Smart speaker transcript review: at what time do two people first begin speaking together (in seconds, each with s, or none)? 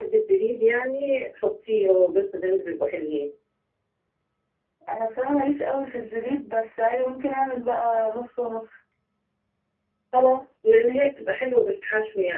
none